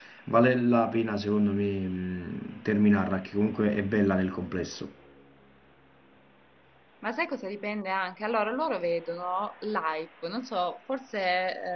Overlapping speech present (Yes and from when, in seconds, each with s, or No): No